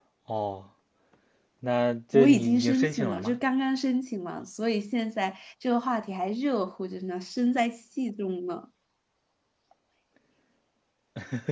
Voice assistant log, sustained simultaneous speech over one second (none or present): present